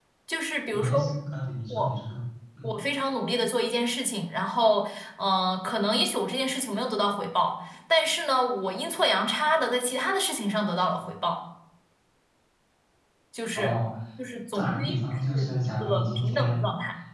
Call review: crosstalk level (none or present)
present